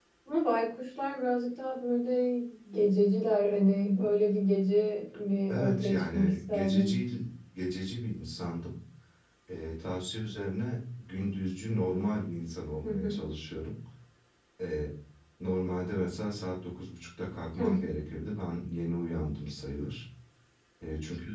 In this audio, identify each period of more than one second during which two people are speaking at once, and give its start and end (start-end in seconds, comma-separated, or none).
5.5-7.0